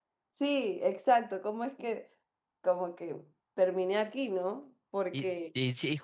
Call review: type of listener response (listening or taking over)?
taking over